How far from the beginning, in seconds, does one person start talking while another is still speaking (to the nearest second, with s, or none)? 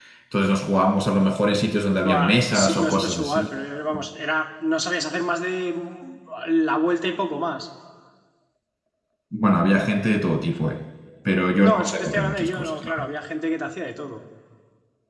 2 s